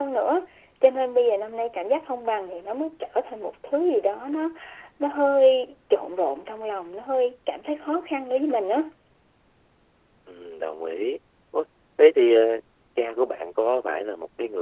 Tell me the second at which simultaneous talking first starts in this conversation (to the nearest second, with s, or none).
none